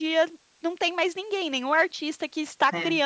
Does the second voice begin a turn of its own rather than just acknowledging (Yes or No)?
No